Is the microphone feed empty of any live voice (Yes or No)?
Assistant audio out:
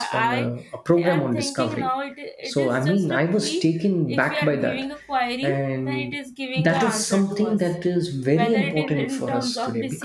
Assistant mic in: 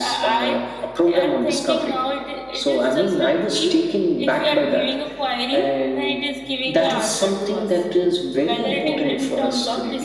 Yes